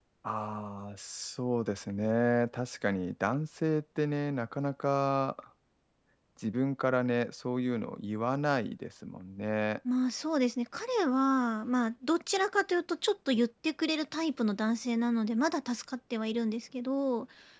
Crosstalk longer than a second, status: none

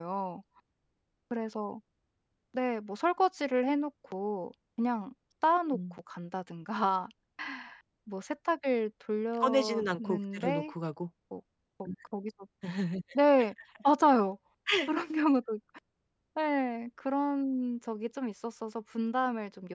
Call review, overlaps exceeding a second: present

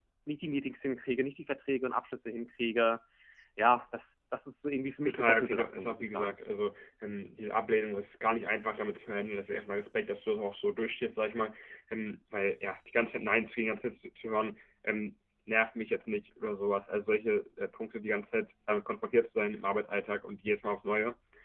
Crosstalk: present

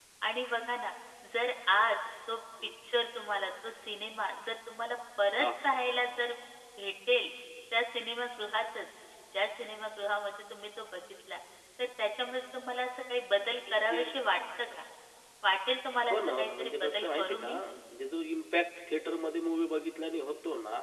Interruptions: present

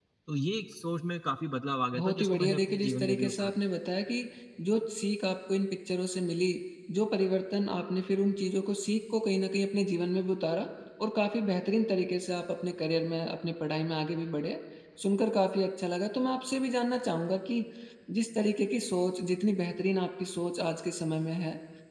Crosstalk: present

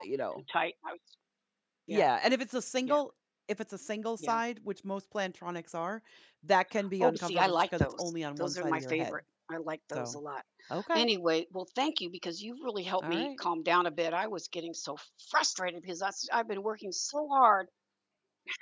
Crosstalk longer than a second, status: present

